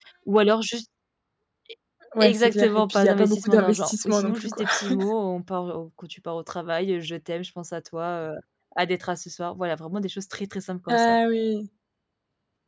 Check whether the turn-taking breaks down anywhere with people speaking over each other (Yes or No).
Yes